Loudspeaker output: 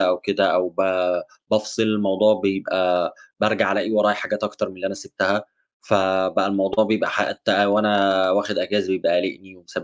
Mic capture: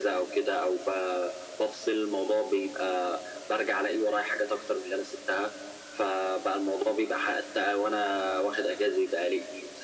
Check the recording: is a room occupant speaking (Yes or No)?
No